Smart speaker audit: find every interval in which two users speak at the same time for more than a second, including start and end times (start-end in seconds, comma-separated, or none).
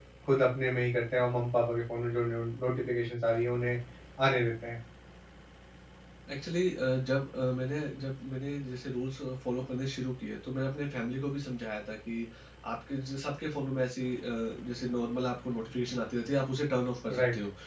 none